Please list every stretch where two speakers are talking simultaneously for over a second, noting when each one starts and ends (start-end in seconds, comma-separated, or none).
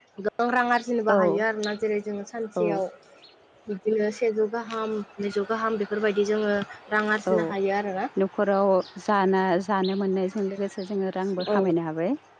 none